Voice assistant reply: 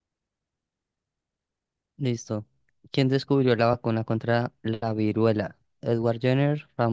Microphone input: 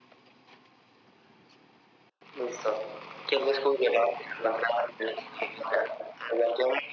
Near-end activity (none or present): none